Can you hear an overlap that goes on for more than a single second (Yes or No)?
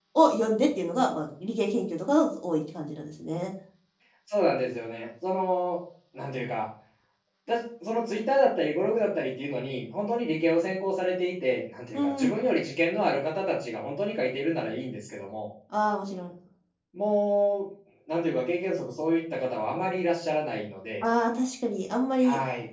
No